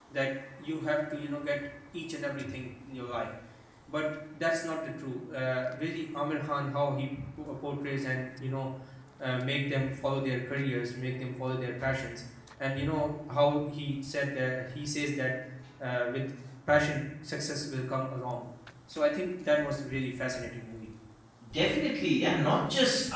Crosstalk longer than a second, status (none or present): none